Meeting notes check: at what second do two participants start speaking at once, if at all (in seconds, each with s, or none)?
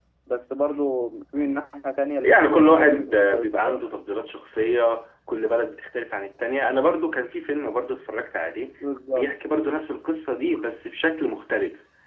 2.2 s